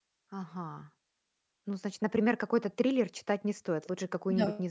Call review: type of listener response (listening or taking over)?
taking over